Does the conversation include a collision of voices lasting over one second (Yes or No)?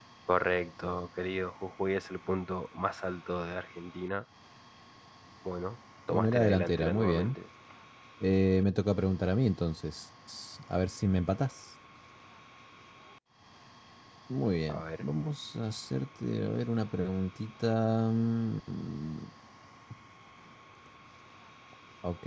Yes